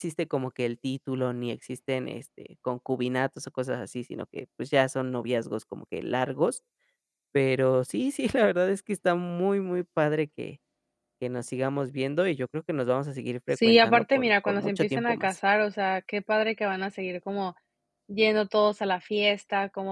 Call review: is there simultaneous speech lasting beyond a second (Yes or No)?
Yes